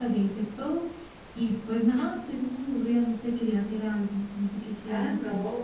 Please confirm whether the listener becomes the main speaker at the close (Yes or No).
Yes